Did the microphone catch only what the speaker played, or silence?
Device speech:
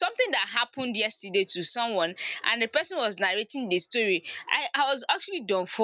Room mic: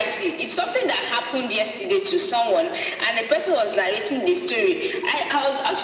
Yes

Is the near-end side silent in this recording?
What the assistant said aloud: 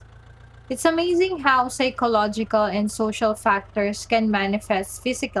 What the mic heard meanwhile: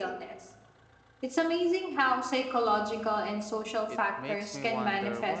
No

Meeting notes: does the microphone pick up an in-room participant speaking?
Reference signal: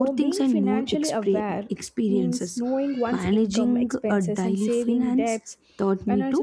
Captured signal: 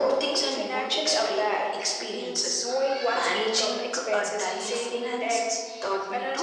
No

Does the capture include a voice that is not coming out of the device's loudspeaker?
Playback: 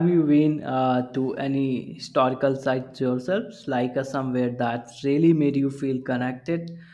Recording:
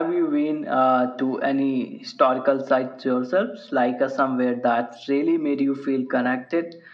No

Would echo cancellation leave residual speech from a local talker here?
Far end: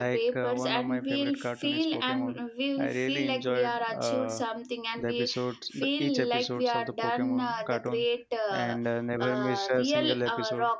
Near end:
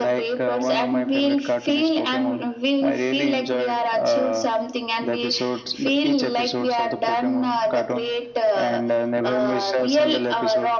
No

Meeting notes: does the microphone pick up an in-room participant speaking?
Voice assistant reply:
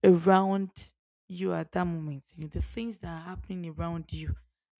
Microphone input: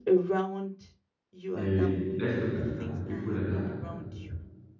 Yes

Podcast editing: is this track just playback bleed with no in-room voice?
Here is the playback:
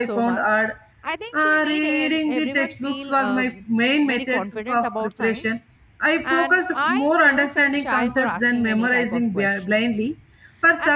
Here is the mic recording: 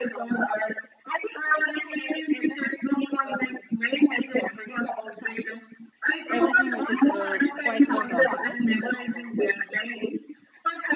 No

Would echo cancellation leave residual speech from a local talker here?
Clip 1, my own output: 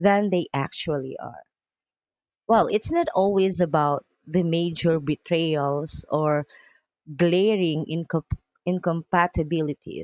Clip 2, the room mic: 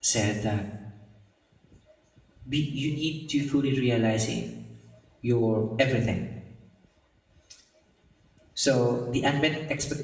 Yes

